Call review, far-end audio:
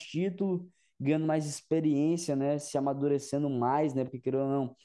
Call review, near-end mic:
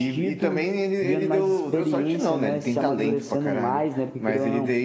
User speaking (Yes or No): Yes